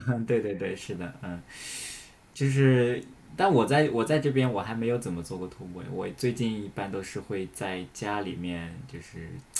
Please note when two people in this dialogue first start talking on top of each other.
none

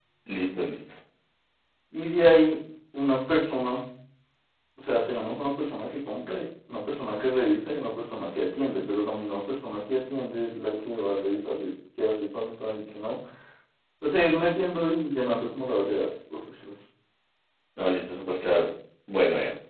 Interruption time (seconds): none

